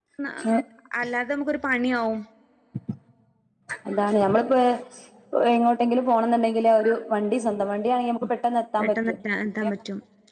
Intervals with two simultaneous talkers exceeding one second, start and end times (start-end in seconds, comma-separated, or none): none